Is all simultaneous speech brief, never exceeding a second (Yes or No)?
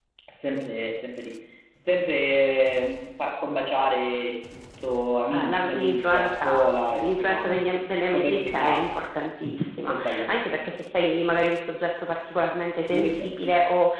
No